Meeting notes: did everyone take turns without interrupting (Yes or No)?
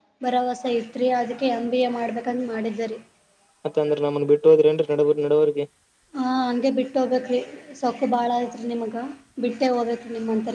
Yes